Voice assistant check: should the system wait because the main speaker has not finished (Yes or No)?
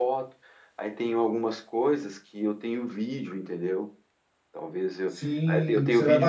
No